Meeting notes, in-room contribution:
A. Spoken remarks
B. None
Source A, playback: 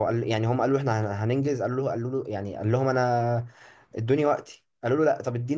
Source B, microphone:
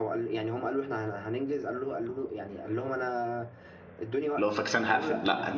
A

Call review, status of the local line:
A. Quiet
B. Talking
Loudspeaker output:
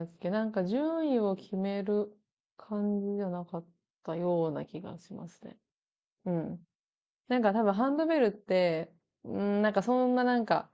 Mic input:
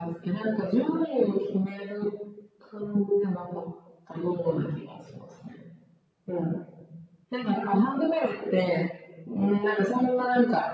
A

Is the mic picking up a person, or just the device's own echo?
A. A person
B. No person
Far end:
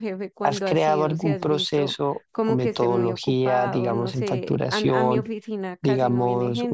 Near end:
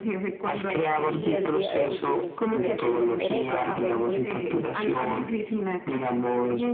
A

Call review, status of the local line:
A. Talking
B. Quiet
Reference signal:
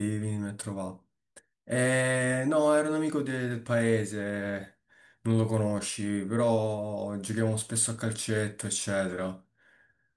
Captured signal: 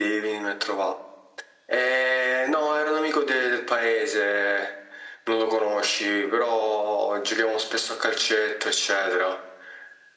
B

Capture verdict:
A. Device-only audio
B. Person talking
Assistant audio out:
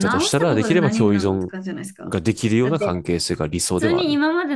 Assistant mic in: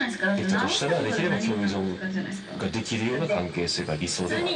A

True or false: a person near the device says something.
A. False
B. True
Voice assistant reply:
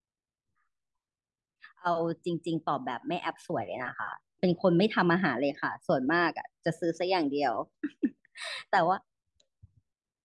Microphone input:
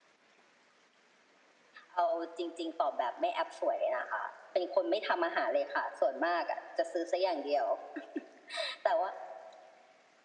A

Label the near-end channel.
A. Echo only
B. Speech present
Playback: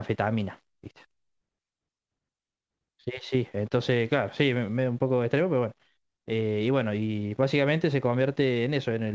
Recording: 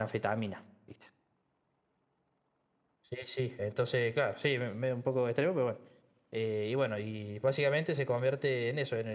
A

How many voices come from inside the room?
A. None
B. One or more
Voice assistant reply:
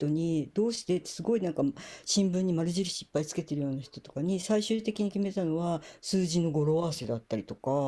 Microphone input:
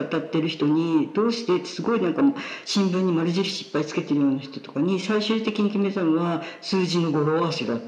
A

